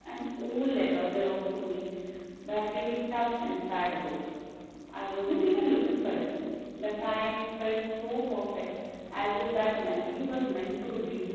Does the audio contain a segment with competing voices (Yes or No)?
No